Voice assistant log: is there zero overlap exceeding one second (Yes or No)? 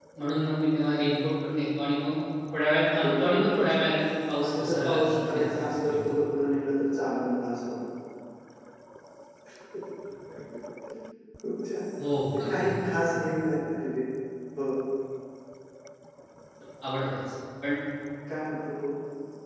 No